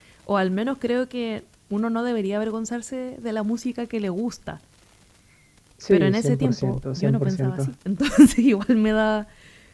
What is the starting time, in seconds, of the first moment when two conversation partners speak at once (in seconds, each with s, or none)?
5.9 s